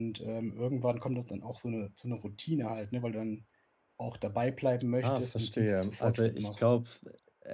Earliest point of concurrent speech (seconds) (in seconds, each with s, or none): 5.0 s